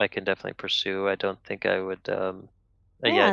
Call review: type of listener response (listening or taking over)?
taking over